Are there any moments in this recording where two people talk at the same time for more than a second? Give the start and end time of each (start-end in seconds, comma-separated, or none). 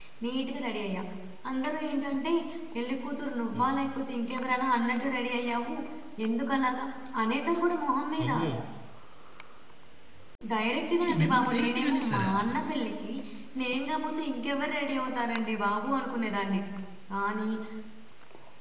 11.0-12.3